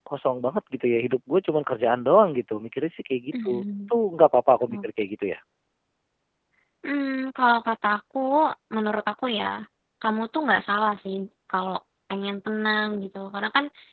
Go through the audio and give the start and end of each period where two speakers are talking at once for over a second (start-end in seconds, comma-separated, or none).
none